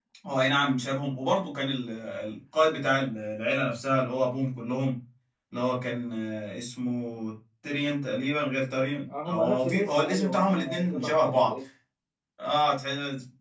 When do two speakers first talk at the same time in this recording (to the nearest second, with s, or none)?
9 s